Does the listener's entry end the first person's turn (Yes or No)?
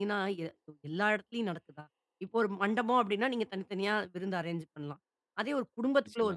No